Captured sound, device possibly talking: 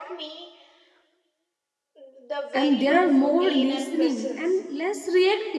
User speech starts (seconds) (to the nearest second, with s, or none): 3 s